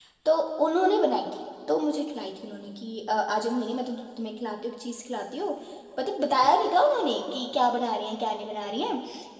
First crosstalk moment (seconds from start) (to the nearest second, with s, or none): none